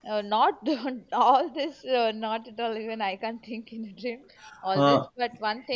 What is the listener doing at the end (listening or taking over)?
listening